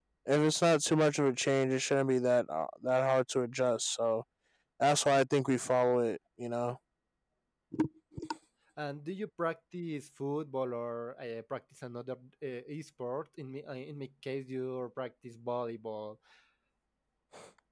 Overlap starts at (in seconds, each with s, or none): none